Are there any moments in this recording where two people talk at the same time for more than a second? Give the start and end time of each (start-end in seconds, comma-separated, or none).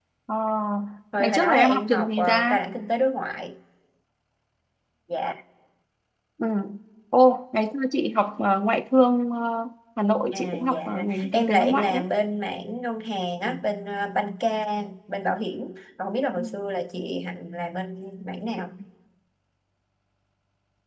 1.2-2.6, 10.3-12.0